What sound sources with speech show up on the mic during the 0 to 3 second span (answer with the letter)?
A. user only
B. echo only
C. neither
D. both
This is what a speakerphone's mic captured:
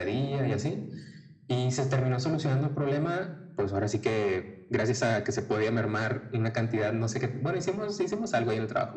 B